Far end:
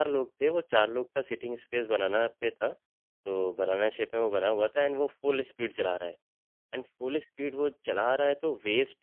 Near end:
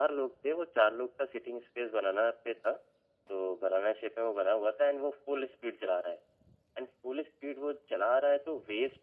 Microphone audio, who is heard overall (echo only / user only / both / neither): echo only